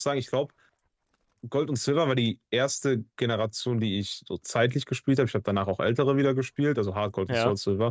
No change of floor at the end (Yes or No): Yes